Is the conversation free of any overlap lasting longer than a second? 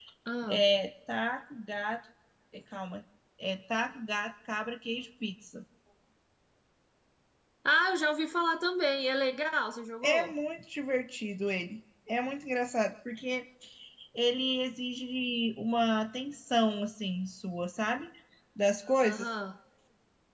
Yes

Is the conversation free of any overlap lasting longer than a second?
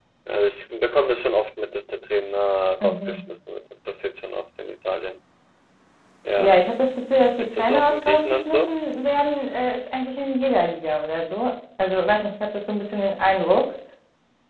No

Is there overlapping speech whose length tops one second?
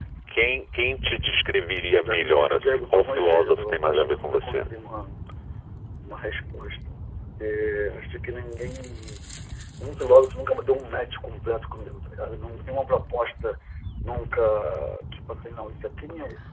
Yes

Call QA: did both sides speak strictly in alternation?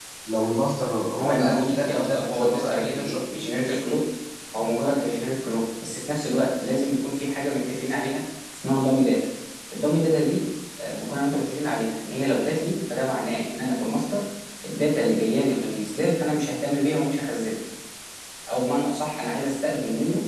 No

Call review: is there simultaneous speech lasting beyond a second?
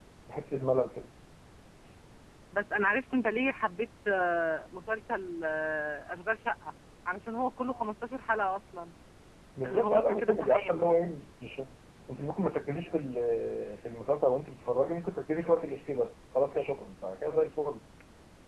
Yes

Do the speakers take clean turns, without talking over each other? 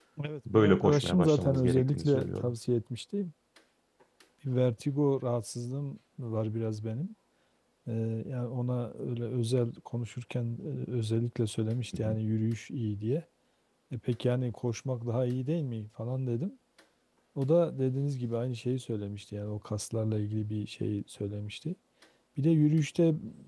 No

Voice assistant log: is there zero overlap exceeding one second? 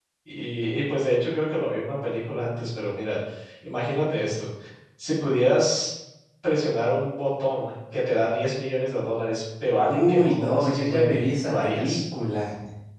No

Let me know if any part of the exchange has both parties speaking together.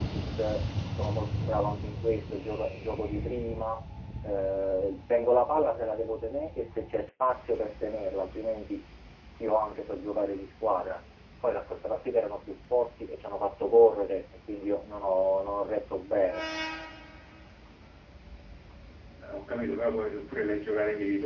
No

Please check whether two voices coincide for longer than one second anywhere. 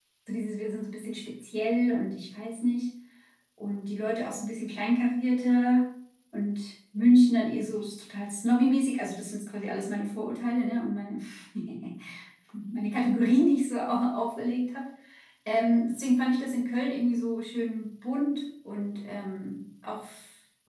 No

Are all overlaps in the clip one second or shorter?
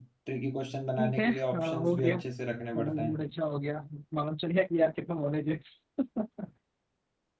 No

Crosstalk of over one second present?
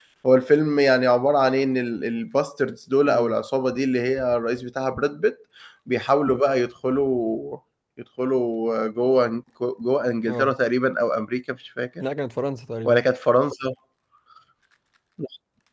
No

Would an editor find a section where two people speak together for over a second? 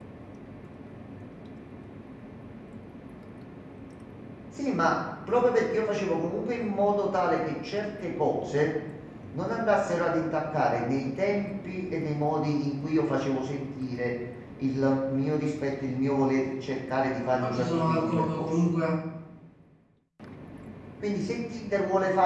Yes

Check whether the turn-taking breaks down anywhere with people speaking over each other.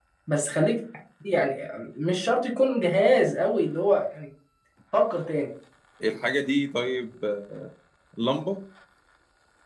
No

